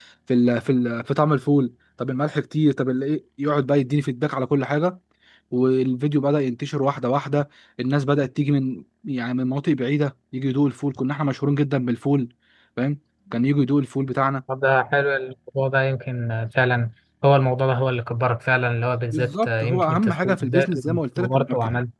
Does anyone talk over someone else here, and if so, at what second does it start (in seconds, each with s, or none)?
19.1 s